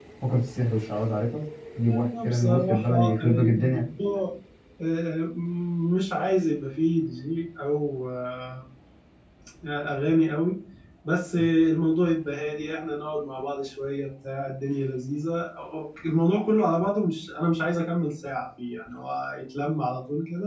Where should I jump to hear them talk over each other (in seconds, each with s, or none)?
1.8 s